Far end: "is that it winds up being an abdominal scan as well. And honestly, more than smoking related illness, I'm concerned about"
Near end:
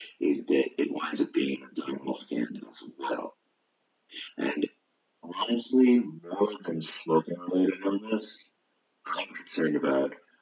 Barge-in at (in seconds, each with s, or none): none